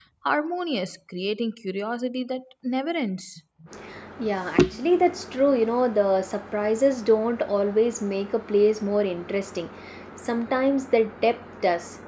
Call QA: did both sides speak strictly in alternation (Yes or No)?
Yes